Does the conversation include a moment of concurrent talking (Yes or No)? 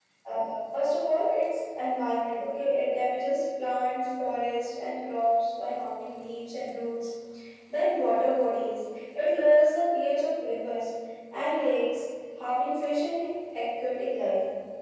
No